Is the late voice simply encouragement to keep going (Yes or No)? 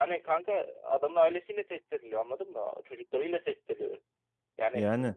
Yes